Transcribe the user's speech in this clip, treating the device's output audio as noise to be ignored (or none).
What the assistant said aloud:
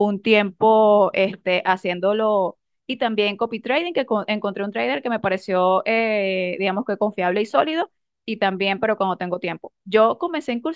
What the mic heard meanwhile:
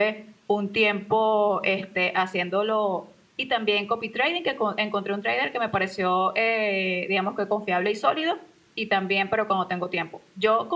none